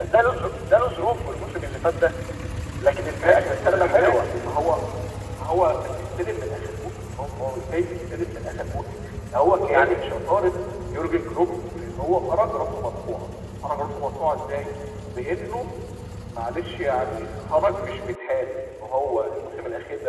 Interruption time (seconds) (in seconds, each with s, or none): 3.0 s